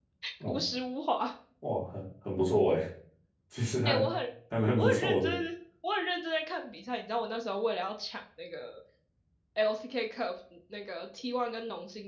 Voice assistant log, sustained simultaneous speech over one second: none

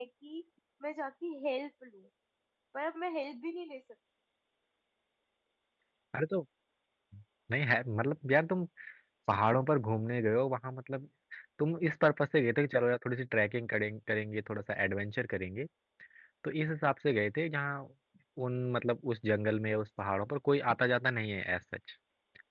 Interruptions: none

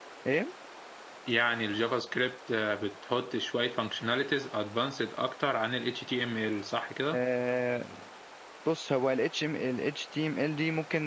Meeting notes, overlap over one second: none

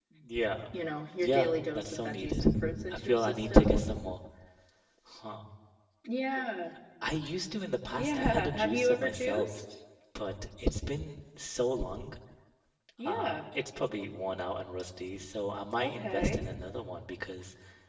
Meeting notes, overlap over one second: present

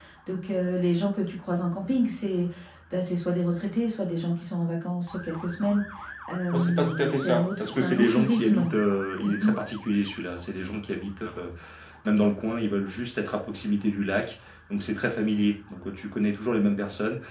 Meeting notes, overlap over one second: present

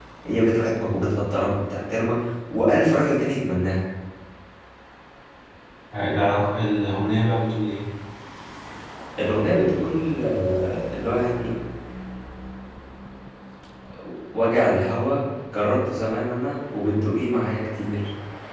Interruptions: none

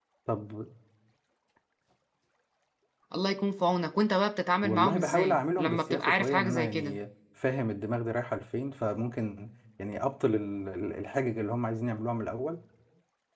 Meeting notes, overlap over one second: present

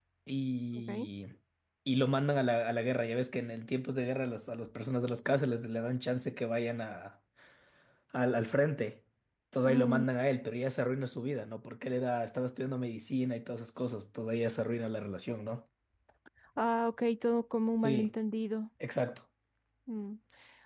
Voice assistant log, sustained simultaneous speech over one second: none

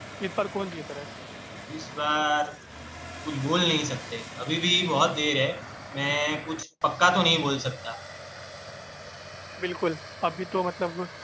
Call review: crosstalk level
none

